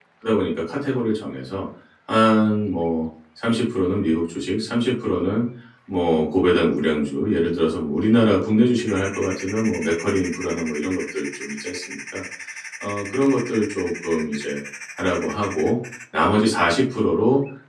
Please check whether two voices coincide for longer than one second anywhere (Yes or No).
No